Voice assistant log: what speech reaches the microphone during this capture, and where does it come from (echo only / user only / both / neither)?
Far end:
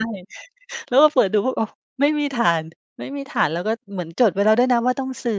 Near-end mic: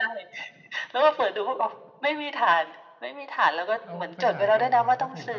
both